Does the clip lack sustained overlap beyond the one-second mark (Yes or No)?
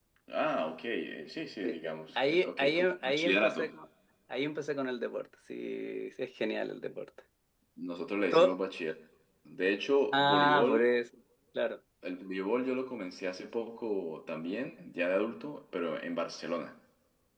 No